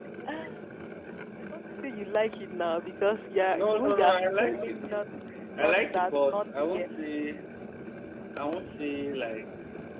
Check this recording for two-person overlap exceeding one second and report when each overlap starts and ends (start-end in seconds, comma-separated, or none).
3.5-4.8, 5.6-6.9